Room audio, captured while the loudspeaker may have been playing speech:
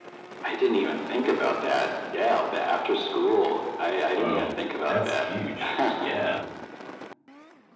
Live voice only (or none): Whoa. That's huge. Yeah.